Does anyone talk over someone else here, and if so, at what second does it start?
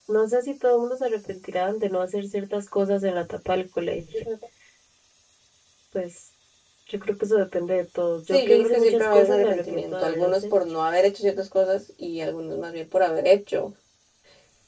8.3 s

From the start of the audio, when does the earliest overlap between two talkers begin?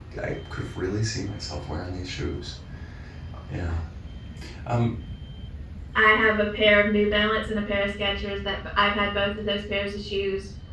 none

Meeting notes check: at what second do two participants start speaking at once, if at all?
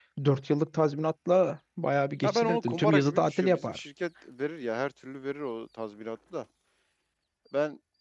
2.2 s

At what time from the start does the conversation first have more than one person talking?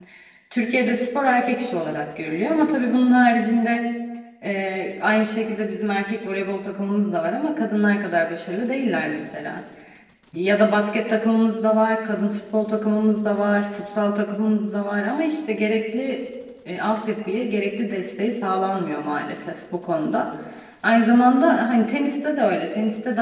none

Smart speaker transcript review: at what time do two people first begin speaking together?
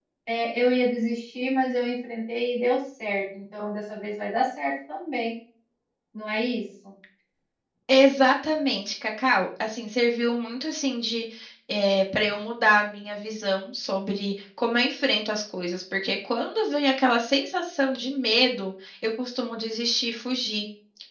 none

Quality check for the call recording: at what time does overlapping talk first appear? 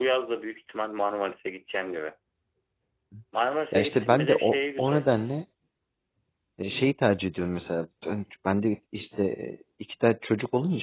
3.7 s

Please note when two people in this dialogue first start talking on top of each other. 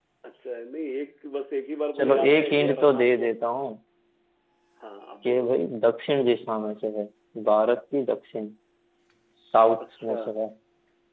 1.9 s

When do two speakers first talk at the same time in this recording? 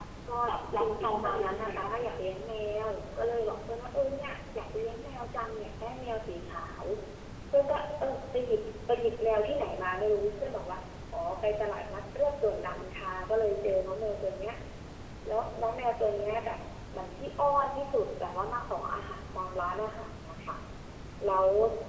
0.8 s

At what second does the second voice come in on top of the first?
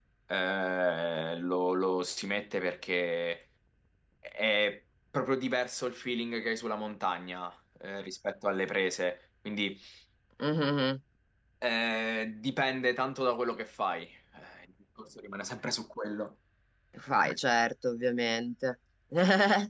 none

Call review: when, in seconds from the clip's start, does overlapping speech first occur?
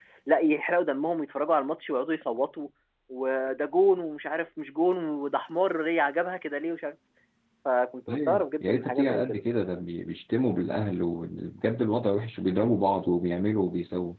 8.1 s

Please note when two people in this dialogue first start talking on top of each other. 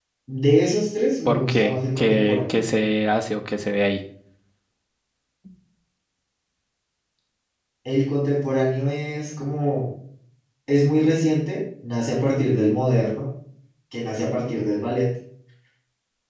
1.2 s

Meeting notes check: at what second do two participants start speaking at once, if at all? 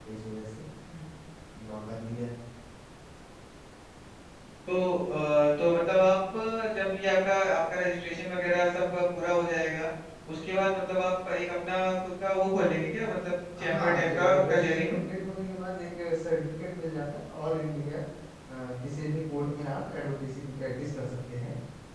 13.6 s

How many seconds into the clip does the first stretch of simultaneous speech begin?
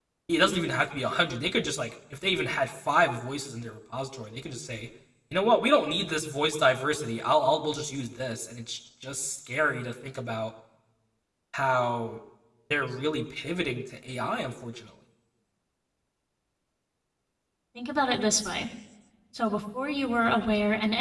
none

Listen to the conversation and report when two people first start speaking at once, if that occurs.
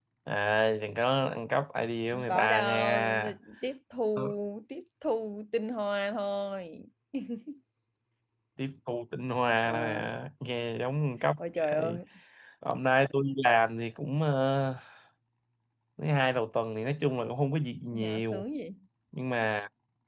2.1 s

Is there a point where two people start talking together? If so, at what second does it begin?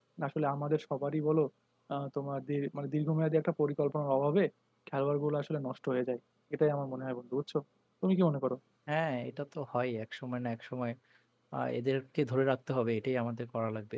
none

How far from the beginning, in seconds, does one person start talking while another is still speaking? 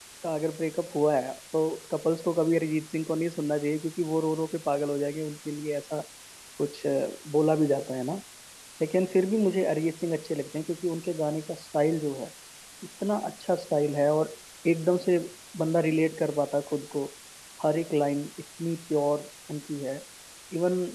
none

